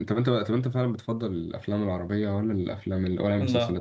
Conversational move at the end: taking over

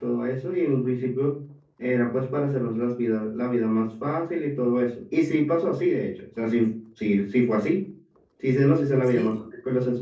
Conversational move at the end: listening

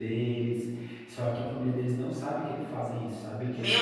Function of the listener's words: taking over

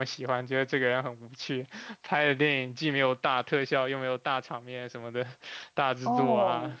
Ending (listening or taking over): taking over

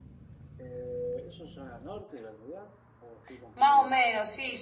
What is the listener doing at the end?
taking over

